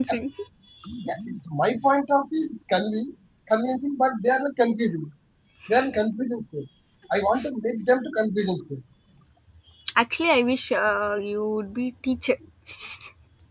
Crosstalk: none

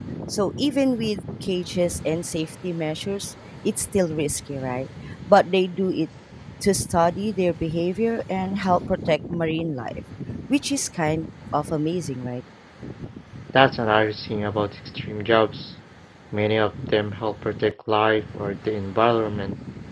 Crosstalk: none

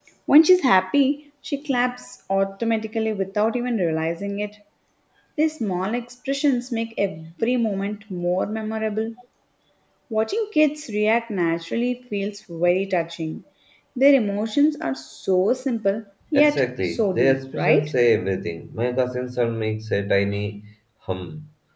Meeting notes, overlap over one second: present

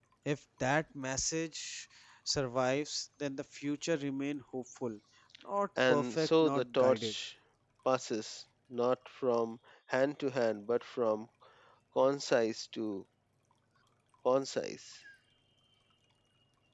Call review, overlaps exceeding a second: present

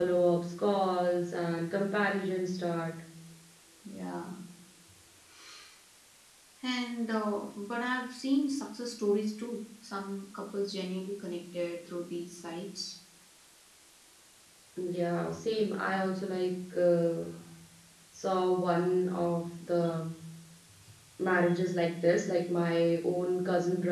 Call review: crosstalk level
none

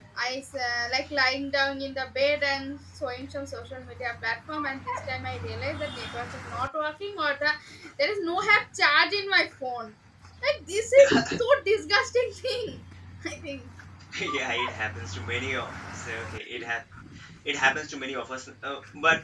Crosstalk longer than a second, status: none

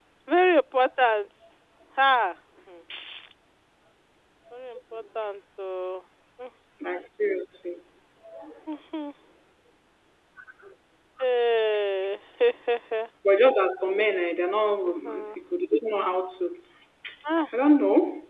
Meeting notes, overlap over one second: none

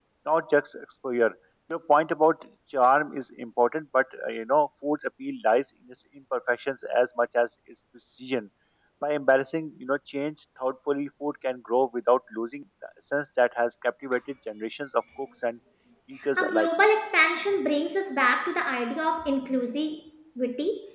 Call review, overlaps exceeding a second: none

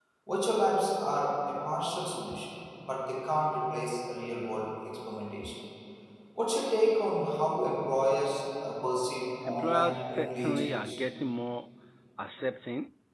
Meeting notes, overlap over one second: present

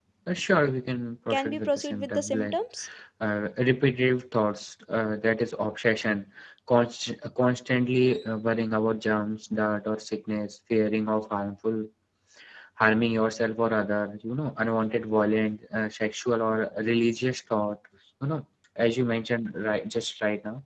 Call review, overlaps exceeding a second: present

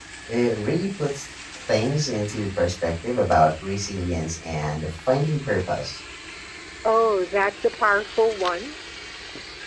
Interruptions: none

